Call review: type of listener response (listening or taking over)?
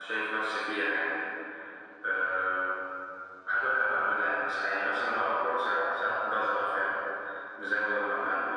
taking over